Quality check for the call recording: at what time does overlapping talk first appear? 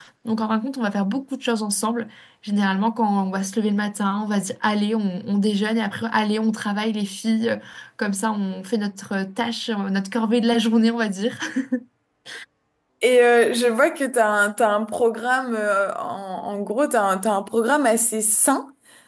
none

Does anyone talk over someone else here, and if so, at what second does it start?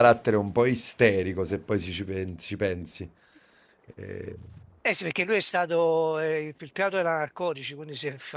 none

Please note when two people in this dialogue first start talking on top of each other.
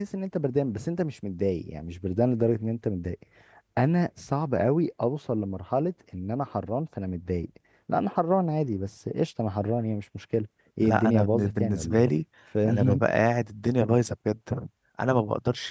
10.8 s

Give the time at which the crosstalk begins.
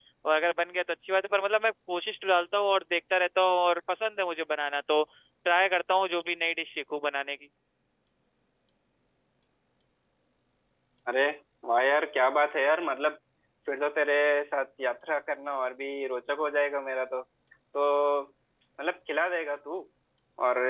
none

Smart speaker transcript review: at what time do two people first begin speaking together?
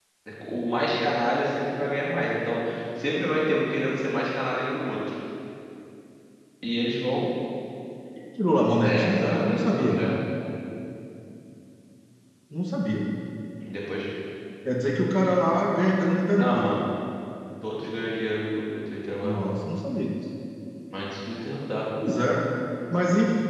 8.8 s

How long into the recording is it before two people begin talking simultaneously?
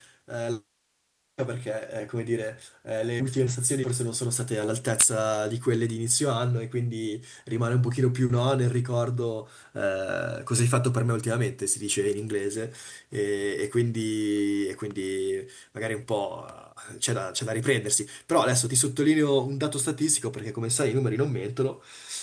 none

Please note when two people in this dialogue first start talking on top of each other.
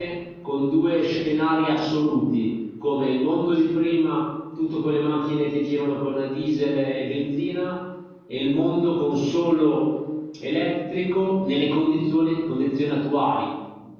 none

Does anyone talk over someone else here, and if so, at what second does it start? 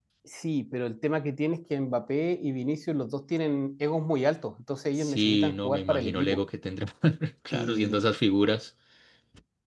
5.0 s

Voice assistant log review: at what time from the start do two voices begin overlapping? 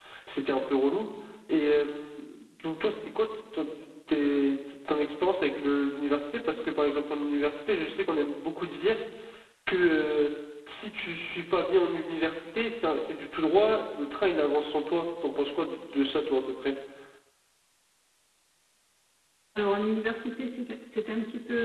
none

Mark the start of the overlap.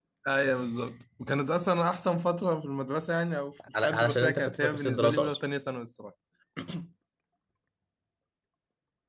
3.7 s

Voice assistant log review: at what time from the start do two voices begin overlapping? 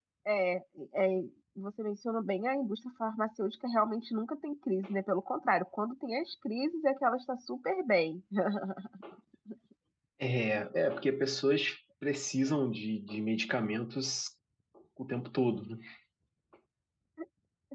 none

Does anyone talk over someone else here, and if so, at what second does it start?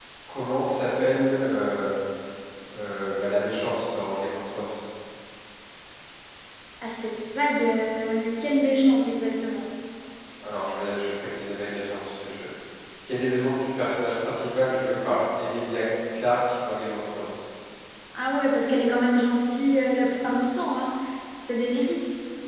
none

